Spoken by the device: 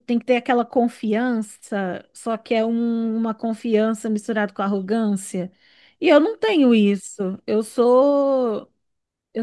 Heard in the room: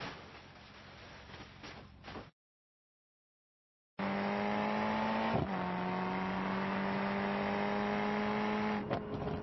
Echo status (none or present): none